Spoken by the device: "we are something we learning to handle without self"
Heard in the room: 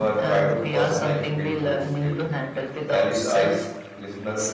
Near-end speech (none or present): present